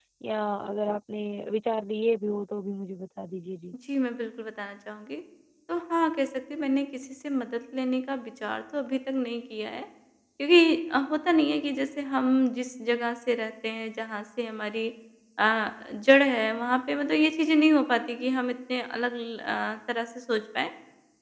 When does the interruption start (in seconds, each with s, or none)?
none